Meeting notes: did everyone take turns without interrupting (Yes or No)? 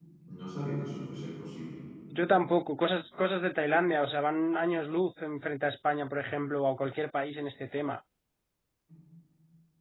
Yes